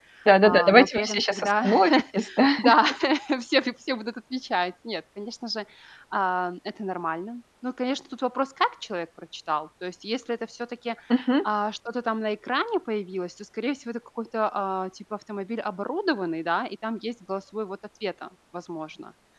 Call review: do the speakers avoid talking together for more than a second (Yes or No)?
No